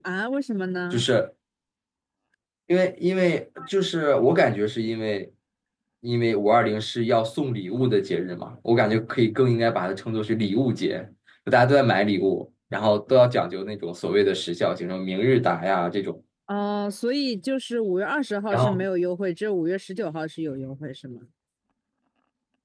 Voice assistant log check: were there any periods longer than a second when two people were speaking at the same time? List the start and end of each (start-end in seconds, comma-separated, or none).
none